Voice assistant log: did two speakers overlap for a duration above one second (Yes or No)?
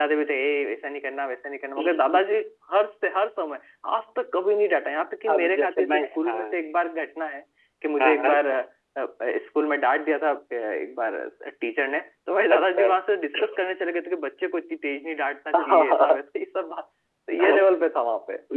Yes